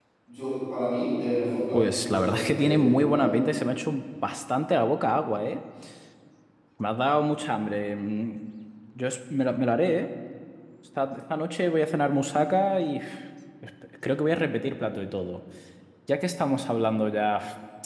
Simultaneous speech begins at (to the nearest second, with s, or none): 2 s